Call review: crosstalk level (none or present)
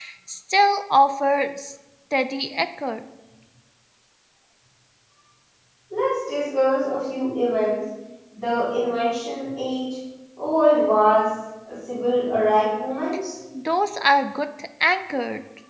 none